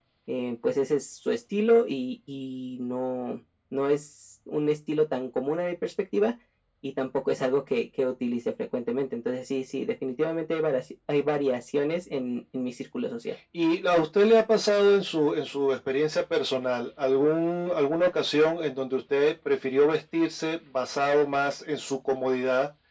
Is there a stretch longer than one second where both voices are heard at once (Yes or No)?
No